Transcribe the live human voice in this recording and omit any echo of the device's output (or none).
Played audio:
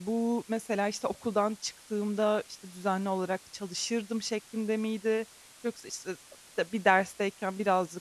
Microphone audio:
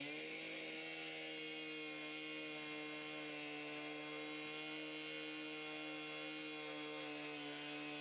none